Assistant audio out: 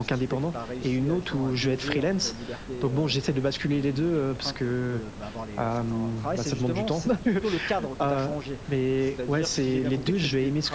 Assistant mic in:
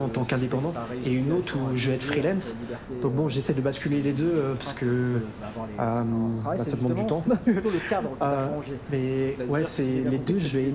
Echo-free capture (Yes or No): No